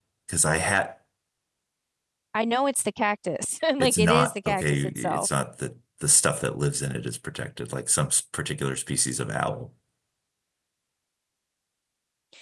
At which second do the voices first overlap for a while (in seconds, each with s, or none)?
3.8 s